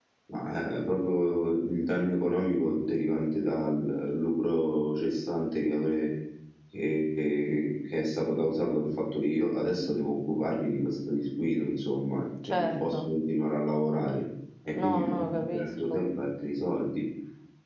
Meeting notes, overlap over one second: present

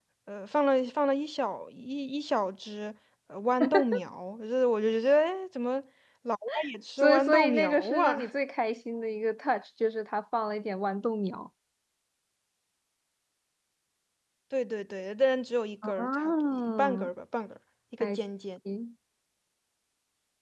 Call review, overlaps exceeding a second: present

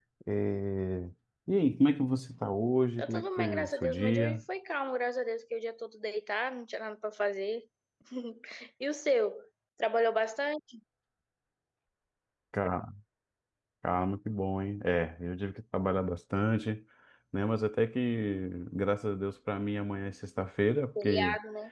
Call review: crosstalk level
present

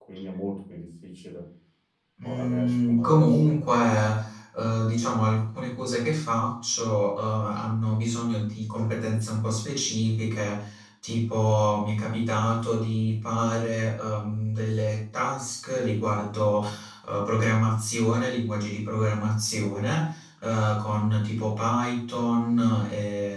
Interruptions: present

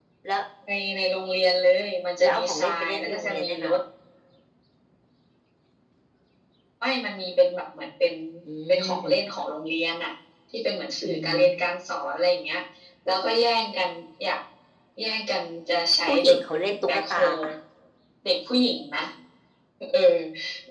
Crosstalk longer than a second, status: present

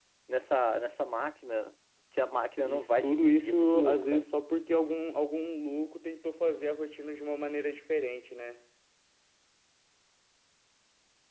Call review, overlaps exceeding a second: present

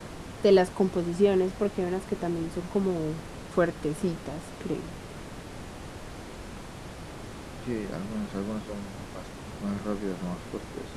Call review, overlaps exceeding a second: none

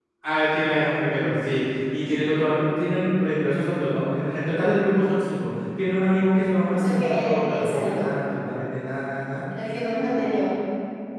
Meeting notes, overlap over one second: present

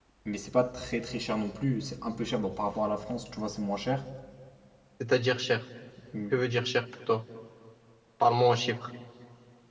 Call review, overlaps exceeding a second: none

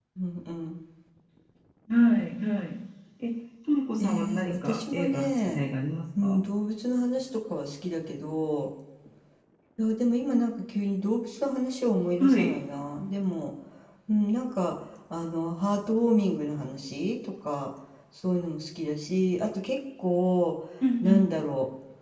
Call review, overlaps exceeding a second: present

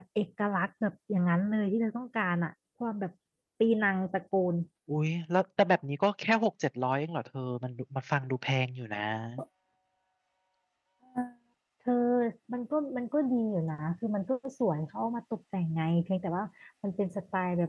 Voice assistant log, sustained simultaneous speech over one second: none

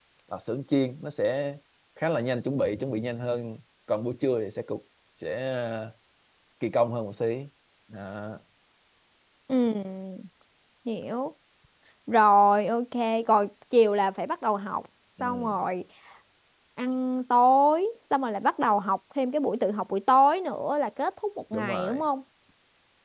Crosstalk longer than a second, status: none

